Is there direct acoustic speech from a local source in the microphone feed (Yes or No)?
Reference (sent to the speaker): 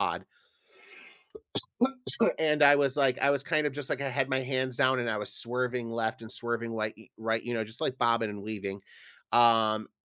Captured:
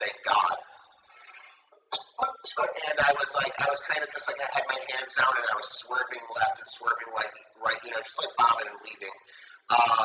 No